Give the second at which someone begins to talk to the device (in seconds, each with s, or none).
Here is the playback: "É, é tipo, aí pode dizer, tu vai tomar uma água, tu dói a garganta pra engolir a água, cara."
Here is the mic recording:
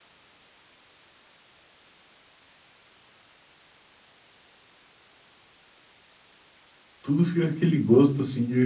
7.0 s